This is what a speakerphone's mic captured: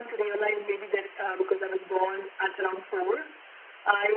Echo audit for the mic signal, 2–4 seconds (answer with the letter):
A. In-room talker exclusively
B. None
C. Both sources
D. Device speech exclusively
D